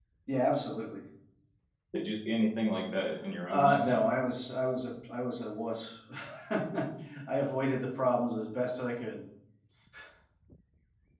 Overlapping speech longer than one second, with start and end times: none

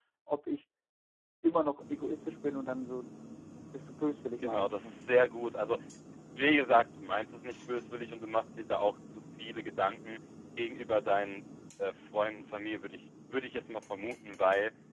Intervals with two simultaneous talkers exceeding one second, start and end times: none

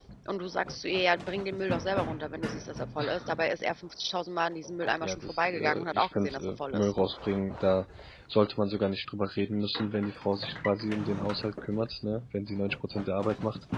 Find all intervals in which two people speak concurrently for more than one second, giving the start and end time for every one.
5.0-6.9

